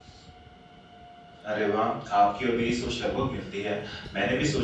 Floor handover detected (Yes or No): No